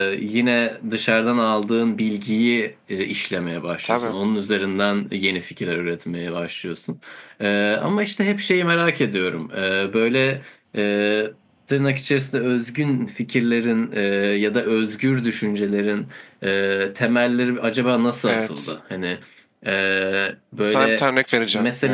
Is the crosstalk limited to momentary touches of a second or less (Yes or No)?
Yes